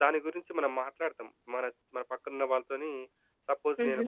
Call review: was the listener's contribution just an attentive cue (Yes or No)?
Yes